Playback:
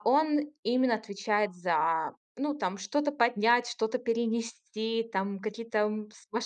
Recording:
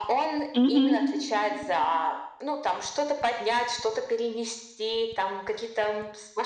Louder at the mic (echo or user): user